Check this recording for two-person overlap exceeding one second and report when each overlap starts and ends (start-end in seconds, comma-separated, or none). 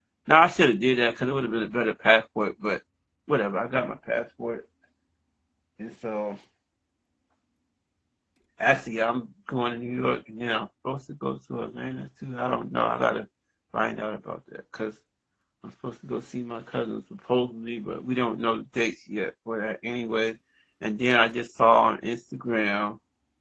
none